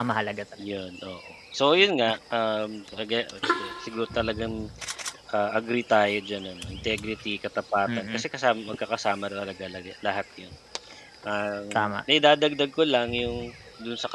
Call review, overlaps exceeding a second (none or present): none